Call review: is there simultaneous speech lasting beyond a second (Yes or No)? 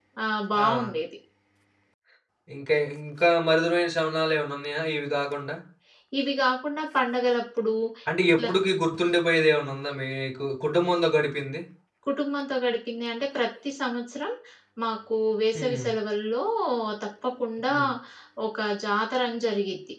No